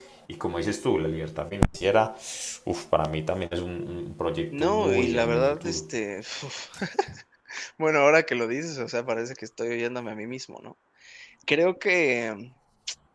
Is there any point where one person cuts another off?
Yes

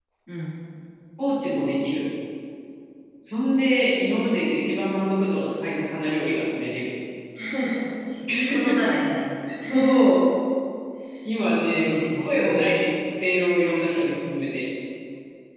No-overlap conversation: No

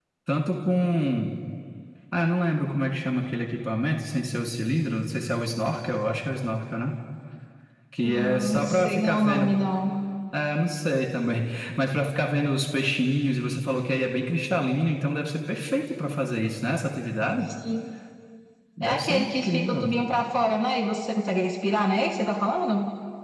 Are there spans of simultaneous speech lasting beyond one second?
Yes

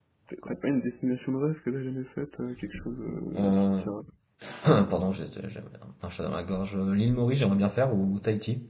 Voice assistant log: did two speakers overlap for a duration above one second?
No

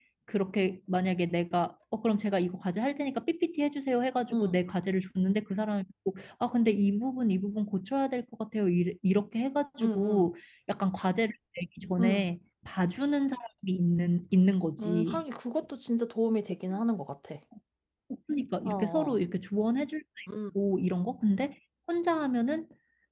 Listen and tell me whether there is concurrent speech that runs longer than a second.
No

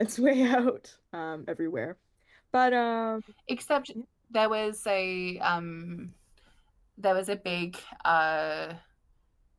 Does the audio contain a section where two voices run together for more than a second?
No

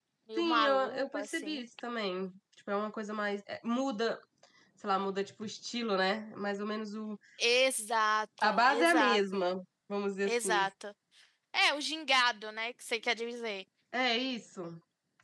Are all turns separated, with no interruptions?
No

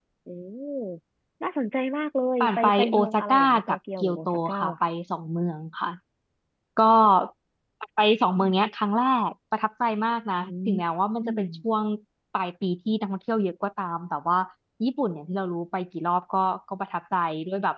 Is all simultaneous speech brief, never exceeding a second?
No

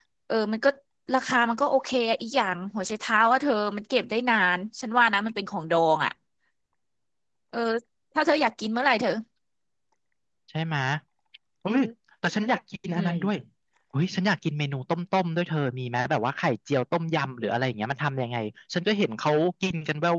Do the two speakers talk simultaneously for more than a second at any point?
No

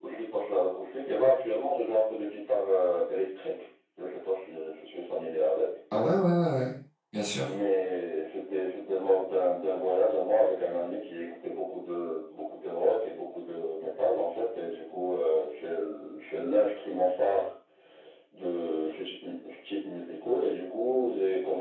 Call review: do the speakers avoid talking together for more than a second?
Yes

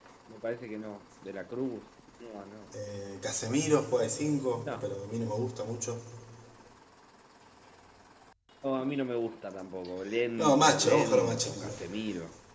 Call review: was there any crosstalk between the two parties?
Yes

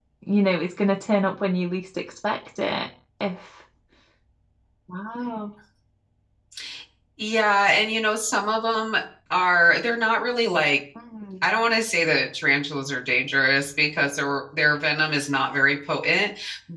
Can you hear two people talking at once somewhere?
No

